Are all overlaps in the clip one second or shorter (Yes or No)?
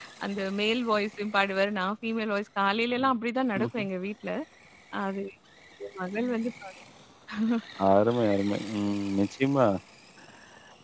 Yes